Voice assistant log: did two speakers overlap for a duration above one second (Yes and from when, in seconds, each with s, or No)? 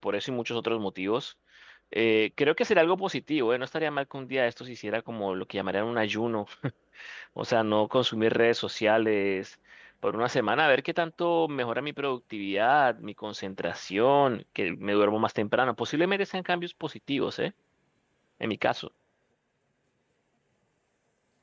No